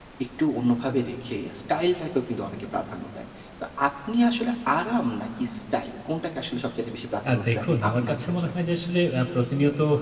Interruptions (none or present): present